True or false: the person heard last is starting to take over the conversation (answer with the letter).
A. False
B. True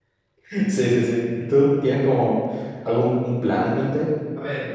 B